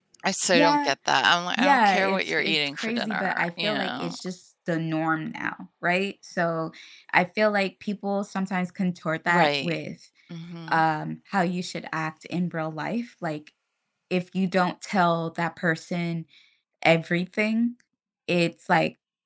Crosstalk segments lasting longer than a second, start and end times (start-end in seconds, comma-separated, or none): 1.6-4.2